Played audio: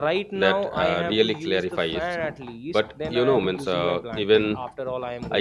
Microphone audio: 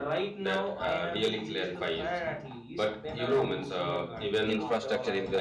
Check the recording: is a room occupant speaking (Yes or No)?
Yes